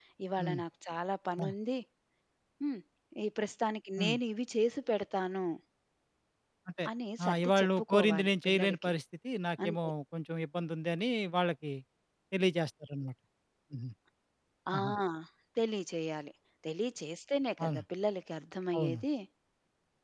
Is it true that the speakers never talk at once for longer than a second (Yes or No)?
No